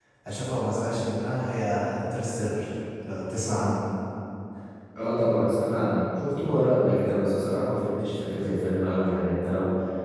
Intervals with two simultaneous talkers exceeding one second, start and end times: none

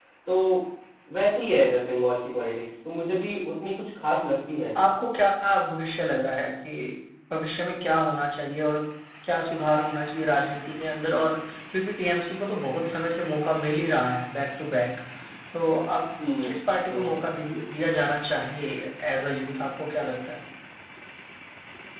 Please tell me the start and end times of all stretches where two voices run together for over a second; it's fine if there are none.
none

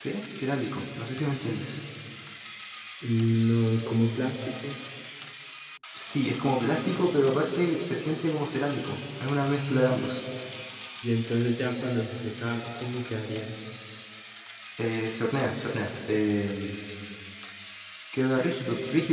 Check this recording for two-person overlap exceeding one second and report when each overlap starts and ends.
none

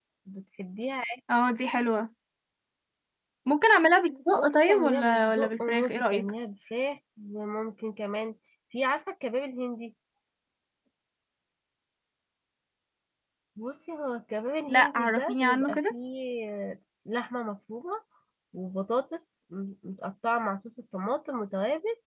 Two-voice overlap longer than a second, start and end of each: 4.3-6.3, 14.7-15.9

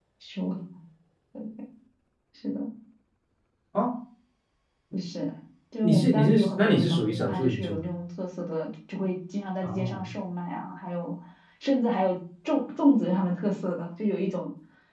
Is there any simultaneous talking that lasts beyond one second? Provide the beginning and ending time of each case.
5.8-7.8

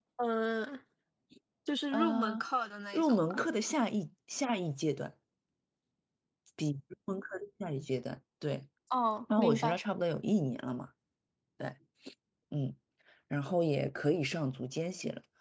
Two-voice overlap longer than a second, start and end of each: none

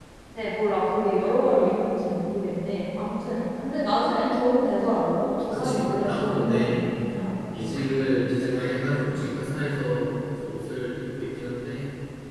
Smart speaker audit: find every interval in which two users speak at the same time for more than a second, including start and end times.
5.5-6.9

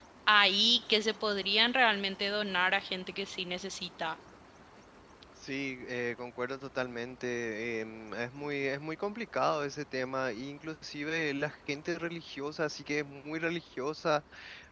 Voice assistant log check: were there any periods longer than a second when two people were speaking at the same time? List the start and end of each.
none

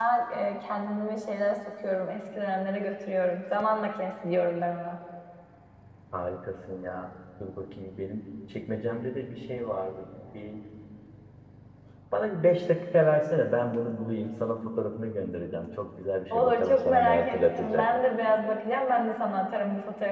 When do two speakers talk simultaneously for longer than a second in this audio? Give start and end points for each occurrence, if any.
16.3-17.8

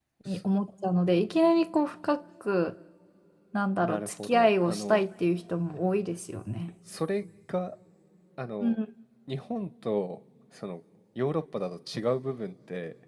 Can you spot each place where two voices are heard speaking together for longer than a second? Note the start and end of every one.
3.8-5.0

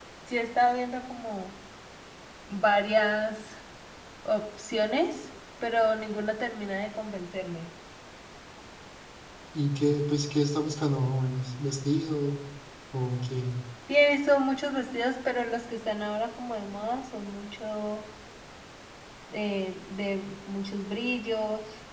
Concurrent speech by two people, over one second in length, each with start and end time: none

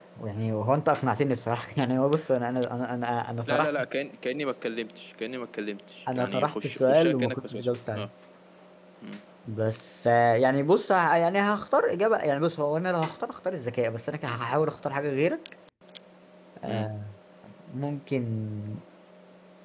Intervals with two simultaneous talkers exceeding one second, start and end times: 6.1-8.1

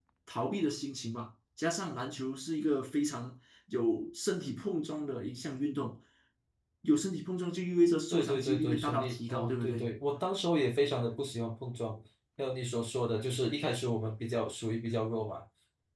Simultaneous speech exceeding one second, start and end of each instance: 8.1-9.9

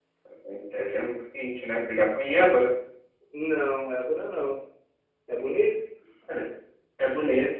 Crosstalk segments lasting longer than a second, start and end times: none

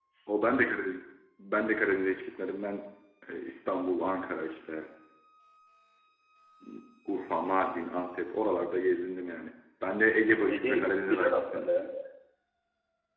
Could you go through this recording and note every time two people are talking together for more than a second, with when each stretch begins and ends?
10.5-11.7

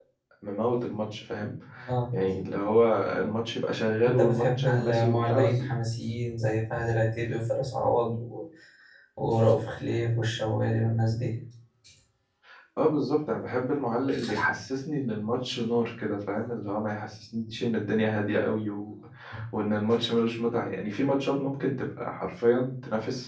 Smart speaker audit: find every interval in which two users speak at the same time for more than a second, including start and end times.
4.0-5.5

